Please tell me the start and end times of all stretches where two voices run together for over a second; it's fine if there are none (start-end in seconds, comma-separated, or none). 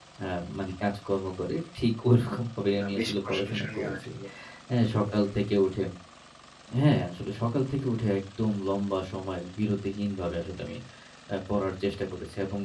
2.8-4.1